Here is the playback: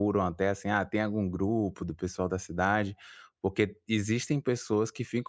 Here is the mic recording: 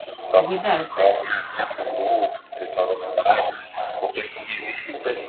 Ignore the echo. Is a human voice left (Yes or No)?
Yes